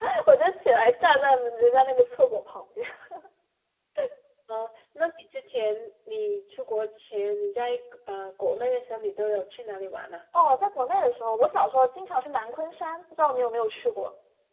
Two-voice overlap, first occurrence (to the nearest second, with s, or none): none